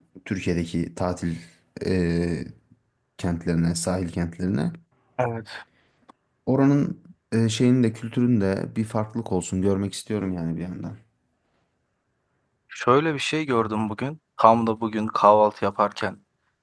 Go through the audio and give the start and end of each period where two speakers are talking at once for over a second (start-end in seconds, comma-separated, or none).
none